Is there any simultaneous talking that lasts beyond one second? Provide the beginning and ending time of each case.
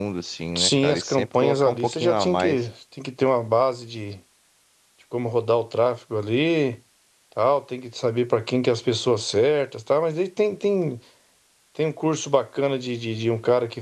0.6-2.6

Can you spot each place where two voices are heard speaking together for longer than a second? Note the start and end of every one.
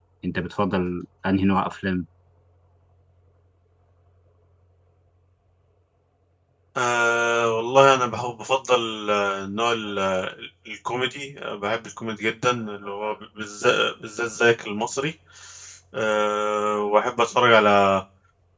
none

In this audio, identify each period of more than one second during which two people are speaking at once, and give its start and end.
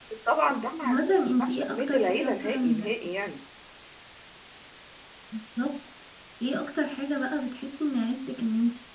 0.8-2.9

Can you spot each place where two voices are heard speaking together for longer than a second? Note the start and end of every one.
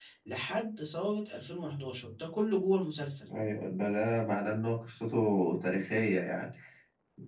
none

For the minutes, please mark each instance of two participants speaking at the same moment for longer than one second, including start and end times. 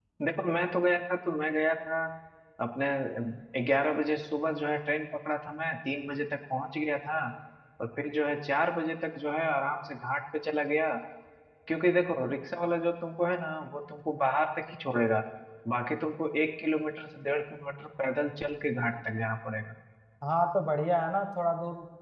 none

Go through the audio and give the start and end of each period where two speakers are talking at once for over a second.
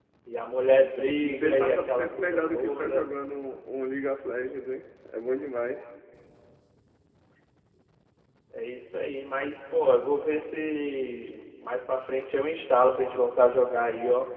1.2-3.0

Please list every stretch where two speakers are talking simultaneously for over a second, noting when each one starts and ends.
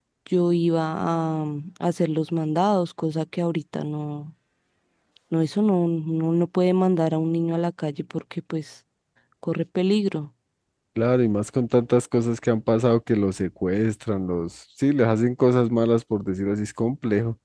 none

